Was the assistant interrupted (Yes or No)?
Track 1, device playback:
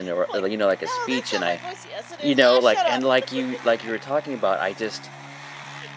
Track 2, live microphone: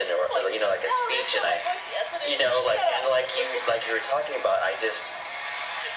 No